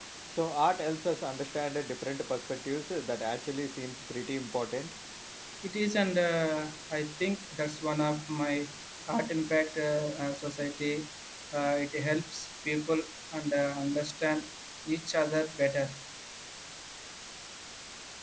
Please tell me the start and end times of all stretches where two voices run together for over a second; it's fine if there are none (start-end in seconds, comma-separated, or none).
none